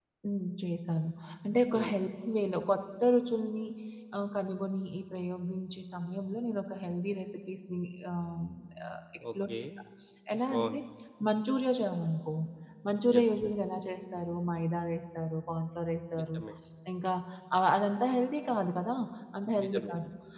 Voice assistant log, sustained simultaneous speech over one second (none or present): none